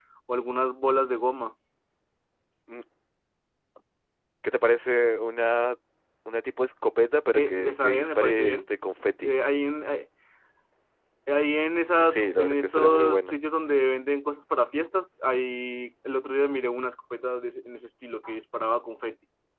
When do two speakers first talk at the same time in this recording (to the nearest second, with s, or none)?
7 s